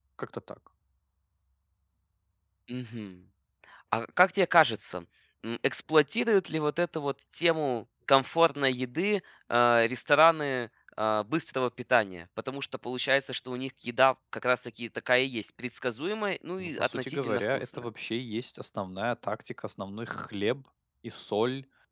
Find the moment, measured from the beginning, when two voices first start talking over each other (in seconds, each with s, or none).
16.6 s